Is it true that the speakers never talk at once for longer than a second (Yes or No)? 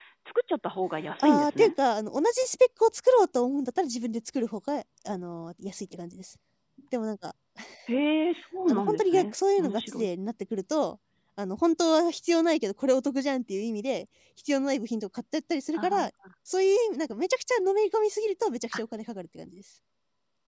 No